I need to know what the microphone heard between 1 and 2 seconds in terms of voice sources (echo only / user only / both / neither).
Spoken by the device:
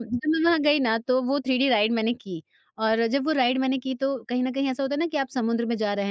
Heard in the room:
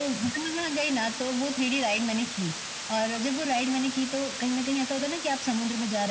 echo only